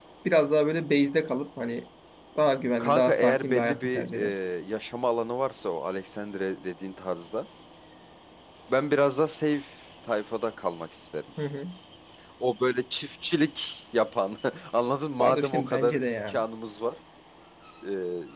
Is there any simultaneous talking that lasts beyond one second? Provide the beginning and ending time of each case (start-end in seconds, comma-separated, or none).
2.8-4.2, 15.2-16.4